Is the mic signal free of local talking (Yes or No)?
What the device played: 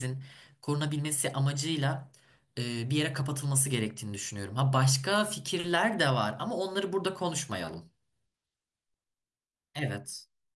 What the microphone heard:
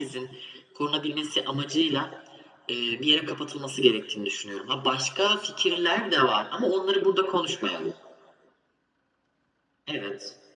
Yes